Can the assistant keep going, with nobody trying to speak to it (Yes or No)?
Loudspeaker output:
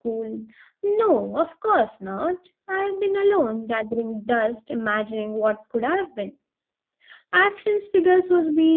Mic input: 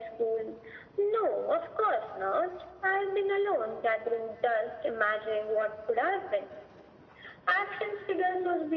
Yes